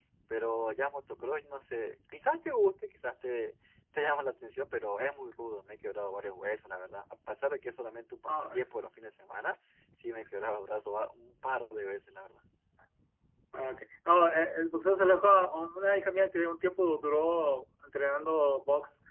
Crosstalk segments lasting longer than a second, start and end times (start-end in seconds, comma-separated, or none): none